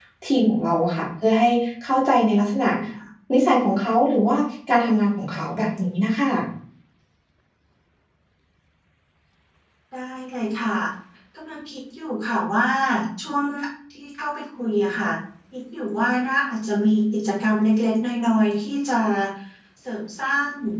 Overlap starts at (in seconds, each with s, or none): none